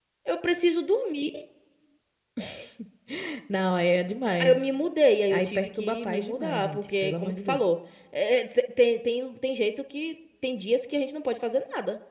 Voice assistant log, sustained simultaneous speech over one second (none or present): present